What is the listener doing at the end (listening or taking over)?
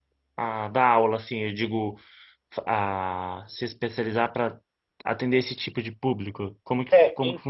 taking over